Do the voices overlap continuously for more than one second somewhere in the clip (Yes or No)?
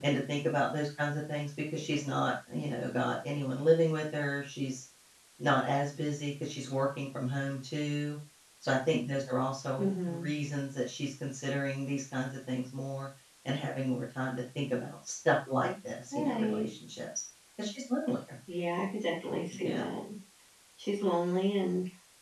No